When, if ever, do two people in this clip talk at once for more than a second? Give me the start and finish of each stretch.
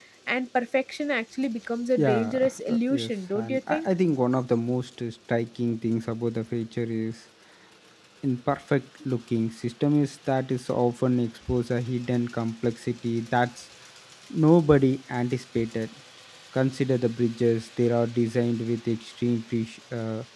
2.0-3.9

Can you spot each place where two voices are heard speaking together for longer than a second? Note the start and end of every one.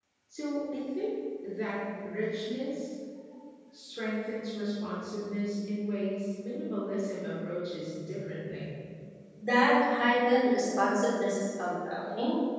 none

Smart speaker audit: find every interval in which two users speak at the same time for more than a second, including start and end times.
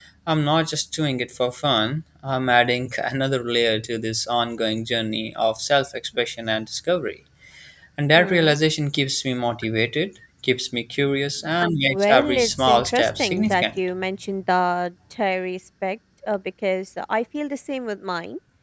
11.9-13.8

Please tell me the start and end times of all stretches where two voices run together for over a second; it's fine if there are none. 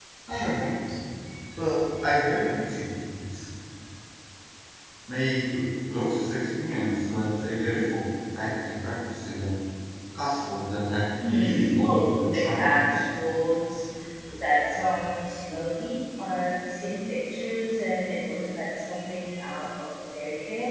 11.3-12.7

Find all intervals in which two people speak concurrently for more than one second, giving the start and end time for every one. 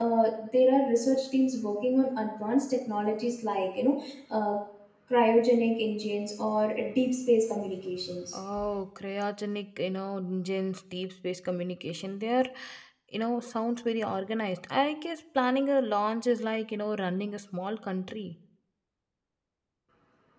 none

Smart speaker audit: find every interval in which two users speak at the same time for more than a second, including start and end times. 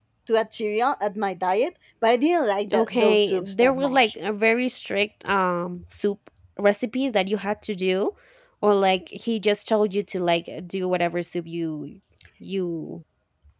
2.7-4.1

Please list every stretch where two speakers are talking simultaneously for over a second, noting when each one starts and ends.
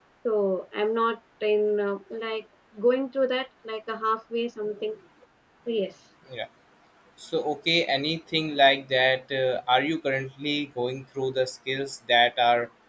none

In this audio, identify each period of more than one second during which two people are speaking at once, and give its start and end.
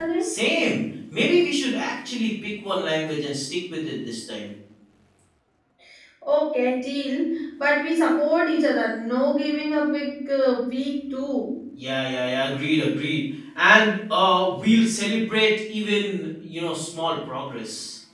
none

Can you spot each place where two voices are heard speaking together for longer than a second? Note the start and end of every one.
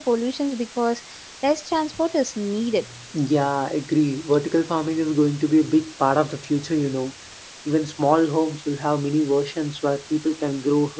none

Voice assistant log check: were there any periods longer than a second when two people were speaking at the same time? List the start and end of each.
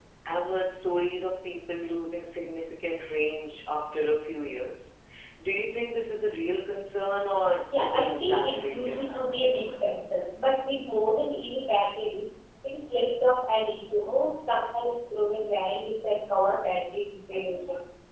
7.8-9.0

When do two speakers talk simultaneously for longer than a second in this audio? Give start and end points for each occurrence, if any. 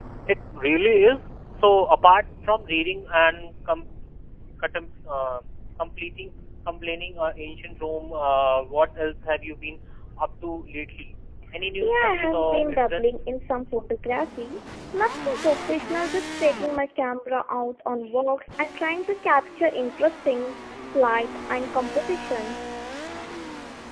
11.8-13.1

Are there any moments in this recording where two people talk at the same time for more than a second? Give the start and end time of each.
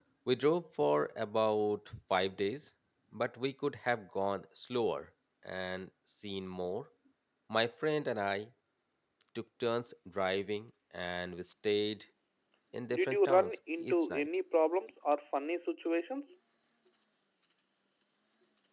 12.9-14.3

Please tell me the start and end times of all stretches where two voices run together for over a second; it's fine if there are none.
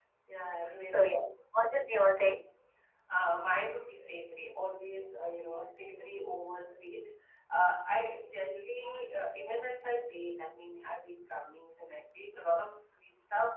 none

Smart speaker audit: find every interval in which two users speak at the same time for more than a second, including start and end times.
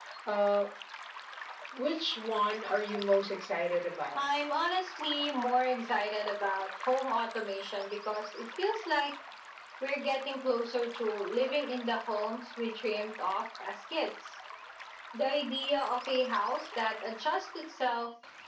none

